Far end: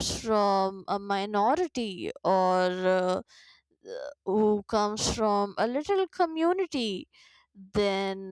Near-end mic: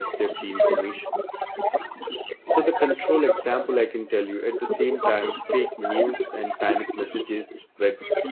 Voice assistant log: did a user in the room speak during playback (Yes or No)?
Yes